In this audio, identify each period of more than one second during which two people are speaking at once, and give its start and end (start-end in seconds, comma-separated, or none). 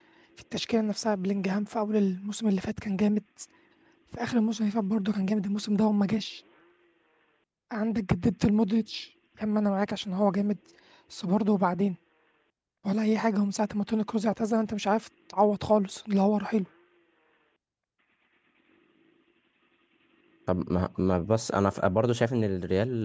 none